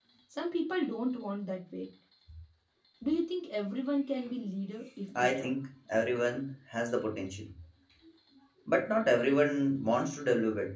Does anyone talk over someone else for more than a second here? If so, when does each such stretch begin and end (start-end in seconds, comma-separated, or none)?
none